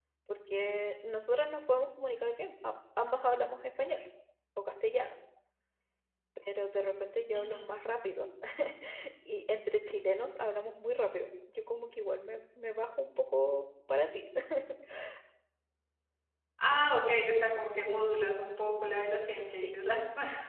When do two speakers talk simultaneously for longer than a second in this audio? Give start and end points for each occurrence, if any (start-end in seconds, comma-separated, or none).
none